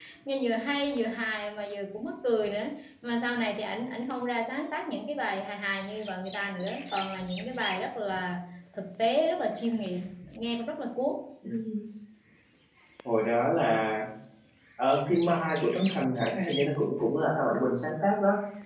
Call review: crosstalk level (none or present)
none